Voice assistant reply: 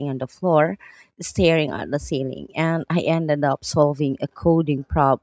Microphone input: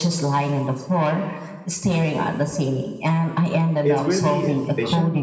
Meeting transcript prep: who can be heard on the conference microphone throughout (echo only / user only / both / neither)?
both